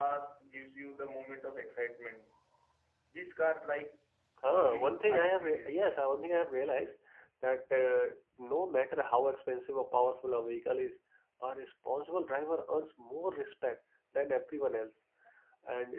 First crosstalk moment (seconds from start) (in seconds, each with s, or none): 4.5 s